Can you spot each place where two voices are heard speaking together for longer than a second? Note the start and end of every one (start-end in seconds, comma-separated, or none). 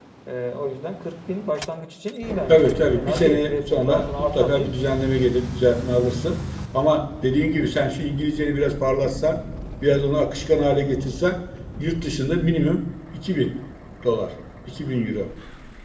2.5-4.9